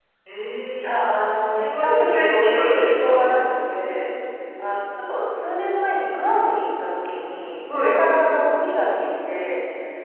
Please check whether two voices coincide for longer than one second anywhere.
Yes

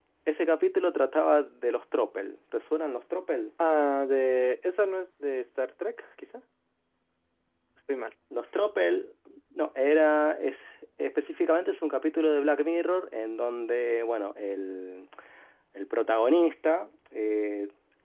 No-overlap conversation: Yes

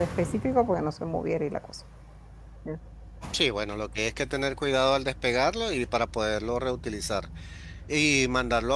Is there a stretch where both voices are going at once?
No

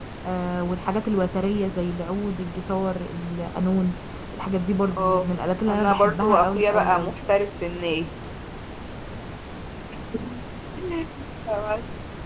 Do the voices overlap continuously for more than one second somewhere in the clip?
Yes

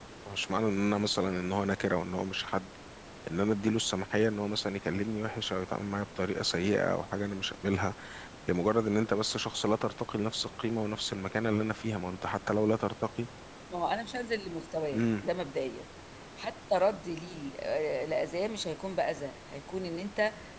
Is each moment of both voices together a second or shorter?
Yes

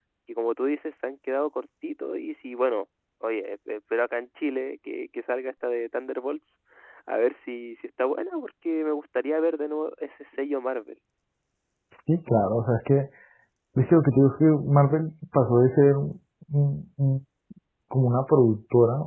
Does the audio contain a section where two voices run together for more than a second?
No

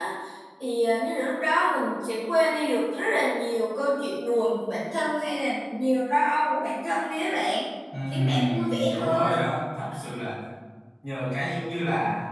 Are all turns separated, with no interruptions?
No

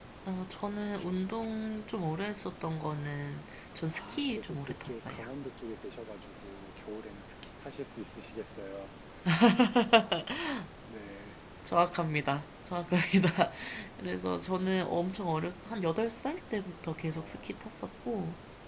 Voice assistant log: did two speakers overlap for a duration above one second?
Yes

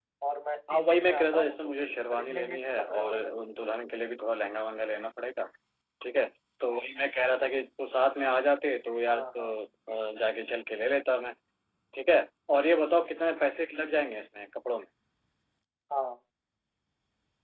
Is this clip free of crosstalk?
No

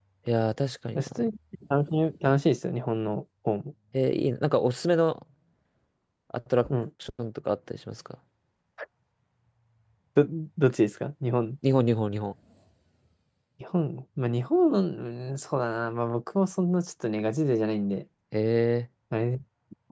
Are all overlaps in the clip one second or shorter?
Yes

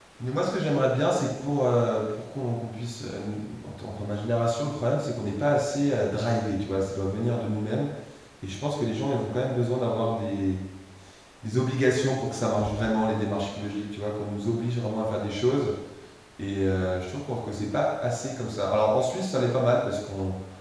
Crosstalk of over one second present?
No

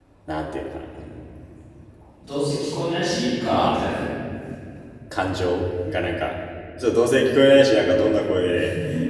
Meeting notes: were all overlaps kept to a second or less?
Yes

